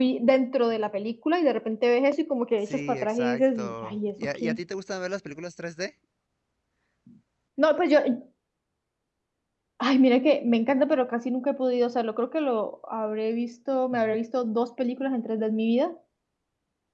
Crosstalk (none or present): present